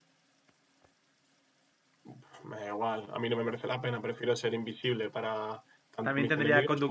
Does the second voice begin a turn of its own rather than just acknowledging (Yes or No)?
Yes